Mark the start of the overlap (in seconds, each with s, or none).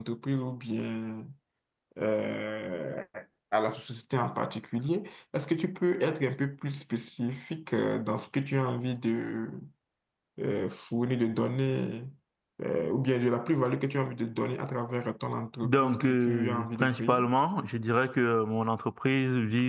15.6 s